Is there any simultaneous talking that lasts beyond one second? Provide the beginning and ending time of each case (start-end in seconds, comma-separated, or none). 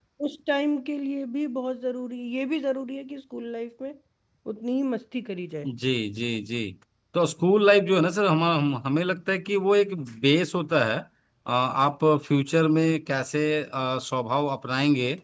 none